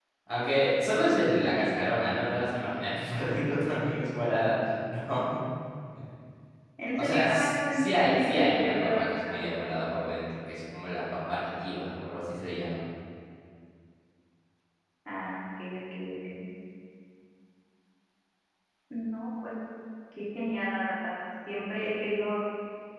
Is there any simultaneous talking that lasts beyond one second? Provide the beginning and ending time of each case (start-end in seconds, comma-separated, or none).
7.0-9.4